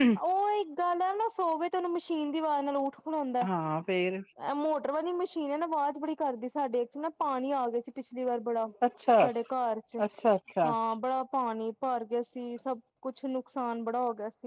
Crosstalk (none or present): none